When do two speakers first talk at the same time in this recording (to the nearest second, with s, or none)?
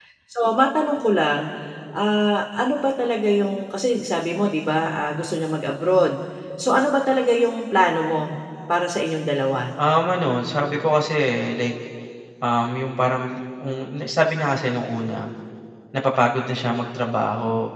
none